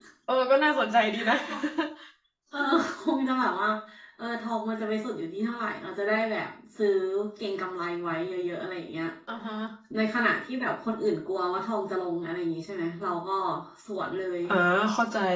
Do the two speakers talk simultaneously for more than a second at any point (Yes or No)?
No